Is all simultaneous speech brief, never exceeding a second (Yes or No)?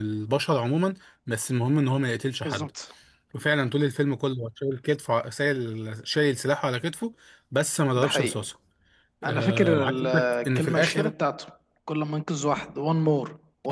No